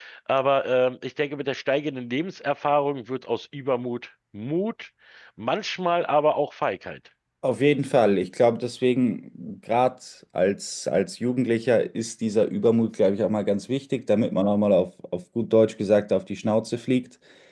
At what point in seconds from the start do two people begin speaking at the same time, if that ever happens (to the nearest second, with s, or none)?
none